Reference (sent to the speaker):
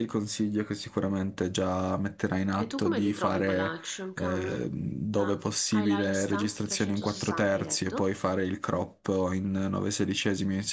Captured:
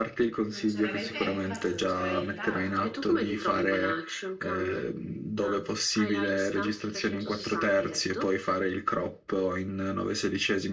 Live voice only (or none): Non c'era ne- eh, infatti non c'era nient'altro.